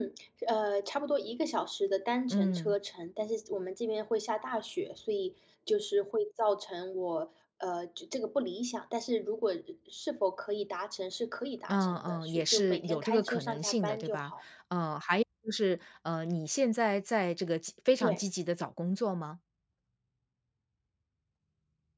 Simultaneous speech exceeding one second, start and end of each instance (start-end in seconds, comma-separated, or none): 11.7-14.3